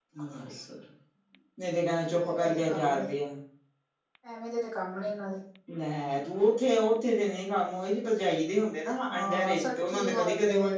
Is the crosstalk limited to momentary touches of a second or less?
No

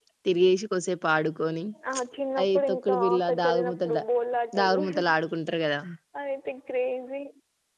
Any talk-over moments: Yes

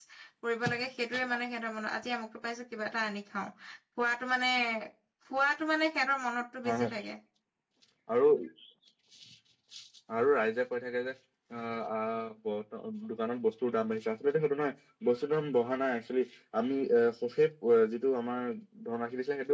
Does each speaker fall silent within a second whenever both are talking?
Yes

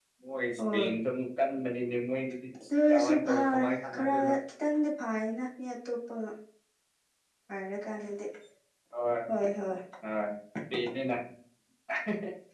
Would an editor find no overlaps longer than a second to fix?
No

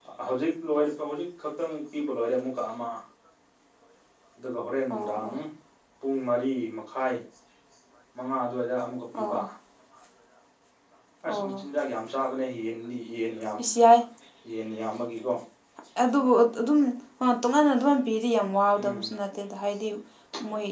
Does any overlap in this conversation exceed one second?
No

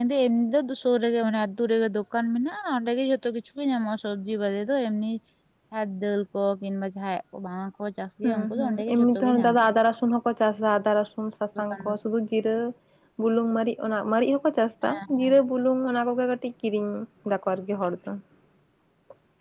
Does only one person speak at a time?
No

